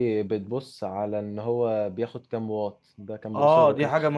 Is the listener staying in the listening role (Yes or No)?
No